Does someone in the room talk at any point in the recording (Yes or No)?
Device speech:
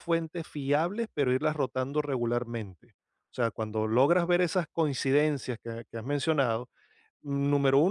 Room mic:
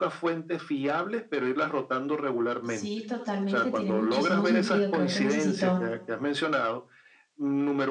Yes